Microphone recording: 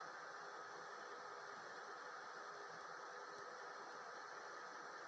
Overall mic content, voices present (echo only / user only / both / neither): neither